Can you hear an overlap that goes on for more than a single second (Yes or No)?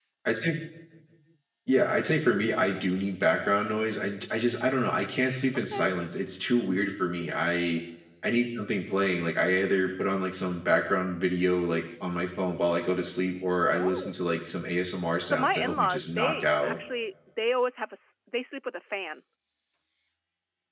Yes